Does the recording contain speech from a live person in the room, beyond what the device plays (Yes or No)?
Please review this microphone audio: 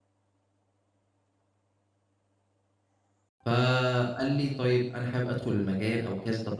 Yes